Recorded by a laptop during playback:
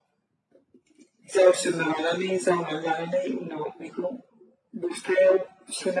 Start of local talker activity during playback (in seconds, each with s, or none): none